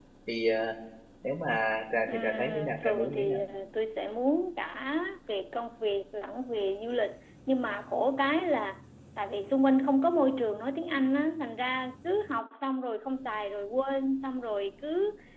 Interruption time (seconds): 2.1 s

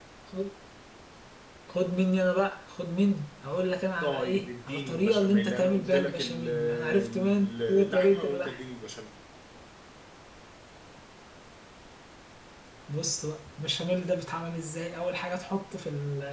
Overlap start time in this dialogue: 4.0 s

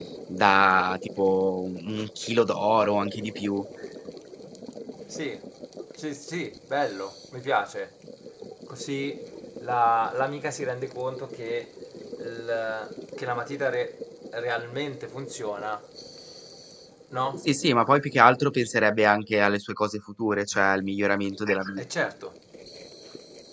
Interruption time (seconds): none

